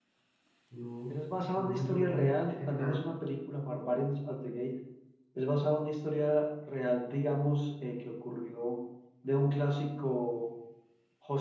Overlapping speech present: Yes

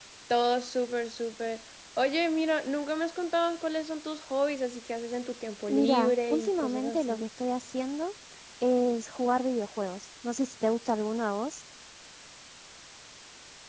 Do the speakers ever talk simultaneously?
Yes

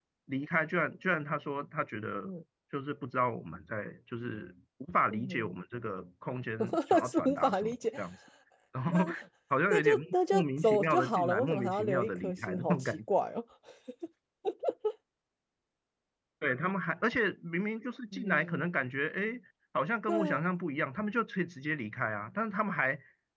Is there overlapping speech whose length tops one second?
Yes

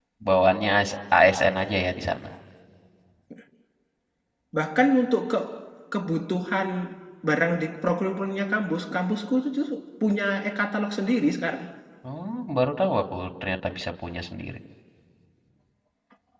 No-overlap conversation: Yes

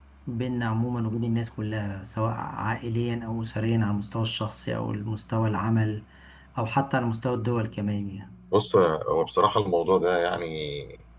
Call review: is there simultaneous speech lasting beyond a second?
No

